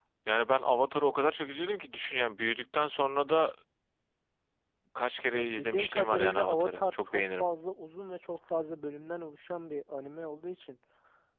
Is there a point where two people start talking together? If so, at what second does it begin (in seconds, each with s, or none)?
5.3 s